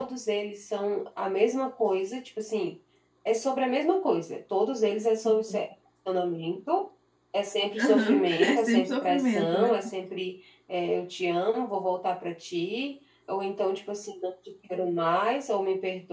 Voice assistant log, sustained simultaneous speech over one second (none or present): present